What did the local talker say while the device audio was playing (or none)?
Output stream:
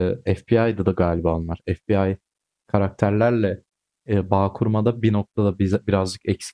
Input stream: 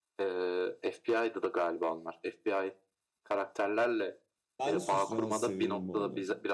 Ben de suçlamayı seviyorum bu arada.